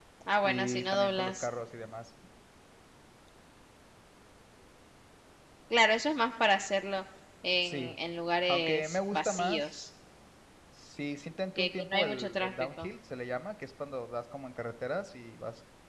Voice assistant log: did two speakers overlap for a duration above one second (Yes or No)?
Yes